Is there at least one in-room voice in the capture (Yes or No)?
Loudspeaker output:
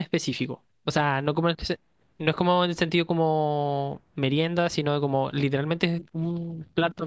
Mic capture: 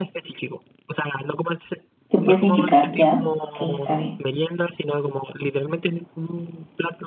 Yes